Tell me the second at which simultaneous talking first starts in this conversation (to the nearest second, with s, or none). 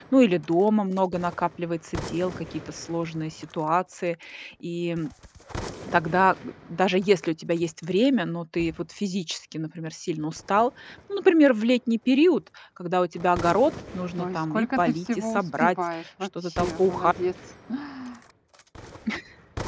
14 s